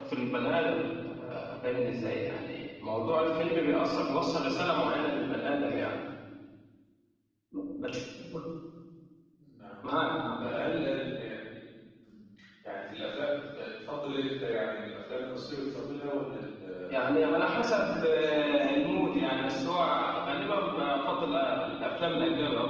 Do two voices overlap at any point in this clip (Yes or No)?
Yes